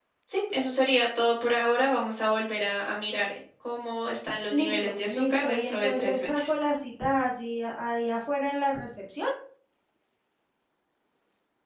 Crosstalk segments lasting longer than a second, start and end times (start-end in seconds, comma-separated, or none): 4.5-6.6